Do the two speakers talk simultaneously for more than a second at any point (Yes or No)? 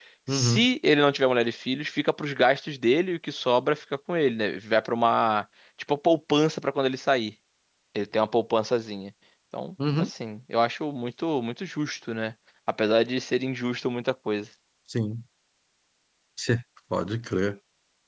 No